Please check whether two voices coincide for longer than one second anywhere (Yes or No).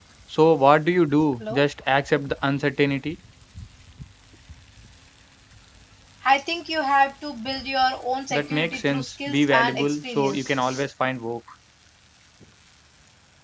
Yes